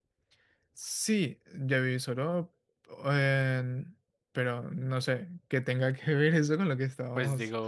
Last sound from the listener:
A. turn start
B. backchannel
A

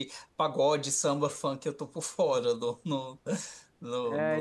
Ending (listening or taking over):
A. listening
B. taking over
B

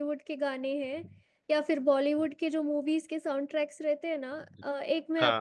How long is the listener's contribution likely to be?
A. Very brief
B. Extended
A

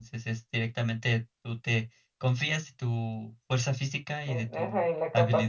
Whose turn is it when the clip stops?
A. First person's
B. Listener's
B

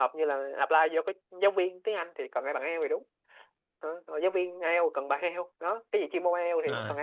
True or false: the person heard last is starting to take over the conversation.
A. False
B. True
B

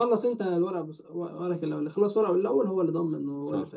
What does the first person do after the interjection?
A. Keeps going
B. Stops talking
B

